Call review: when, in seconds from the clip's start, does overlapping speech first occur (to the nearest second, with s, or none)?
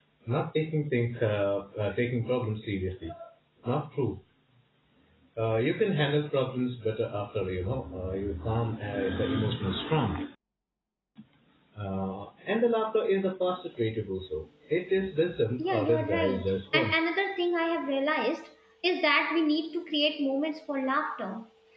16 s